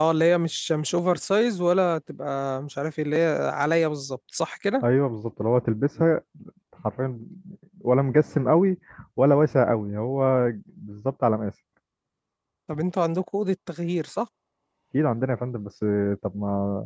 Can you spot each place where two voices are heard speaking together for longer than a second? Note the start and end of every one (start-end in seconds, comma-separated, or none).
none